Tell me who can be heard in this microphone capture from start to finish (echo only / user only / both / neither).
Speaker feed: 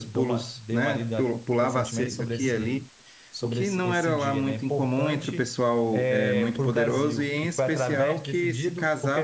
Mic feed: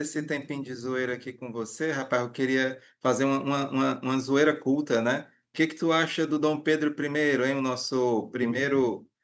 user only